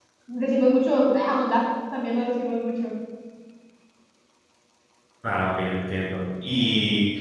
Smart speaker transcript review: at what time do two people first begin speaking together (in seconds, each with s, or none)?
none